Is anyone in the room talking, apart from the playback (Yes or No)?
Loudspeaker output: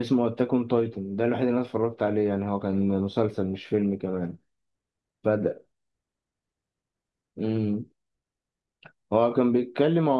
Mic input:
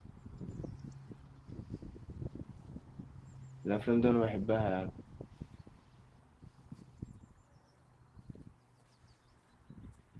Yes